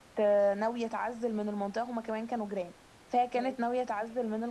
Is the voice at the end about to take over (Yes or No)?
No